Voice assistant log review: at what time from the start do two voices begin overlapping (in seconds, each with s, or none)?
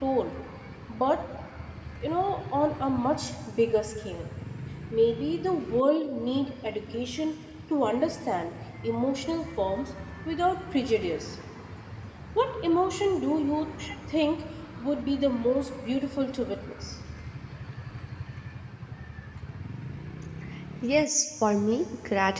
none